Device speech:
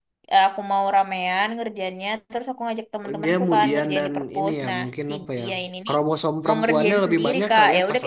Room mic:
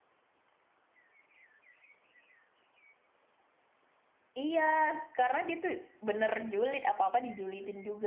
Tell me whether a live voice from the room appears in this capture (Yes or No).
Yes